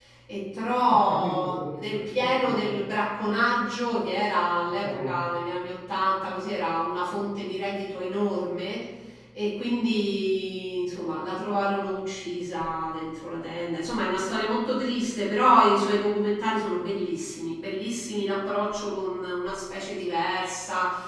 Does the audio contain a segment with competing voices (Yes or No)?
Yes